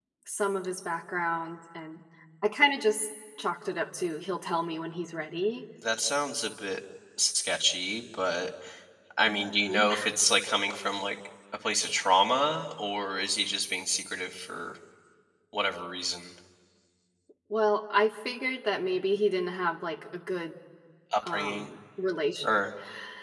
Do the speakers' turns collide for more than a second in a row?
No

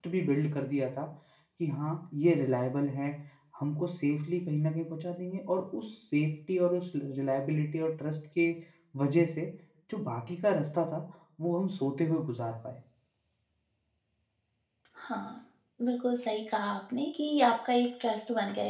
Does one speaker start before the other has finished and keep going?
No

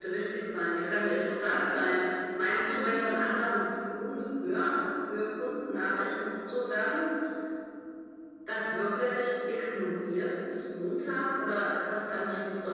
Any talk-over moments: No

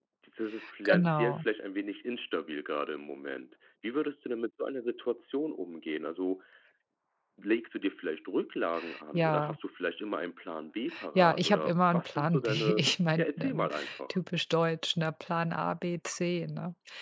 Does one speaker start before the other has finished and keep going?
Yes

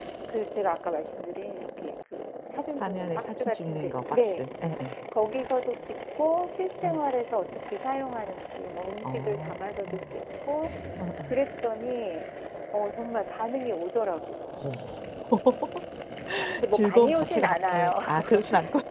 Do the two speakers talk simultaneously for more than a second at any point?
Yes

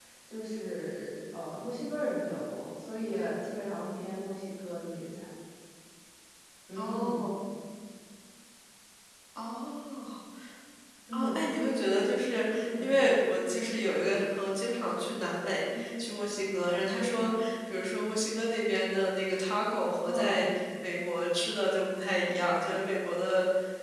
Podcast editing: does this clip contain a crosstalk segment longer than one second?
No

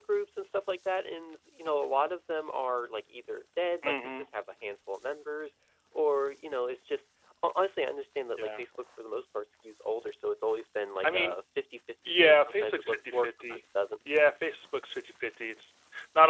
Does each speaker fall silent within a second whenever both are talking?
No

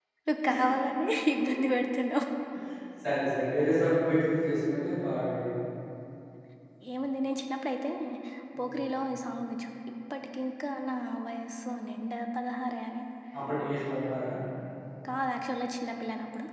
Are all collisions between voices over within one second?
Yes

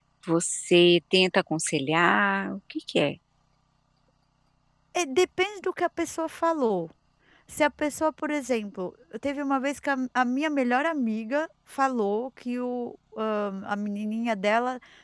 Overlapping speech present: No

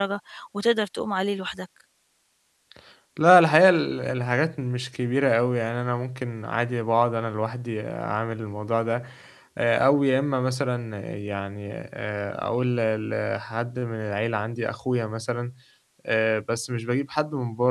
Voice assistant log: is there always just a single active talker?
Yes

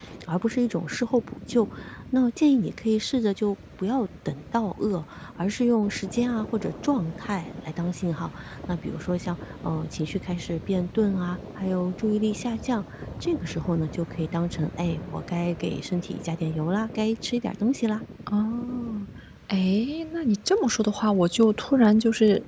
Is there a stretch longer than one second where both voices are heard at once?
No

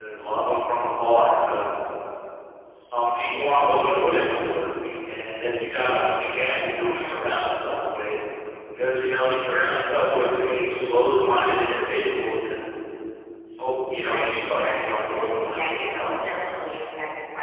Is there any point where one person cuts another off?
Yes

